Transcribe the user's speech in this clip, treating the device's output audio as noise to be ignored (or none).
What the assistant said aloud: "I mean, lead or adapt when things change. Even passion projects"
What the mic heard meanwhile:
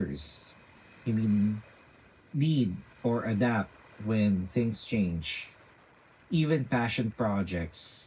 none